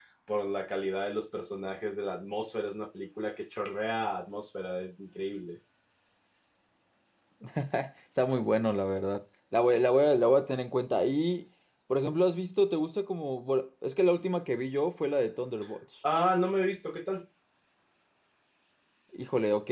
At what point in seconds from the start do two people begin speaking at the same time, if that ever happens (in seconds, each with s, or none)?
none